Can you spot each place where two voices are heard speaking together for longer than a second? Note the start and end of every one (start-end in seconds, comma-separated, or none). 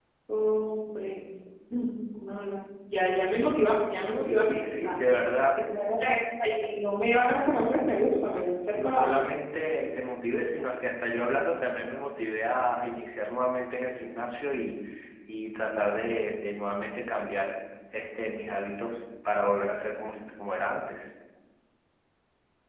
none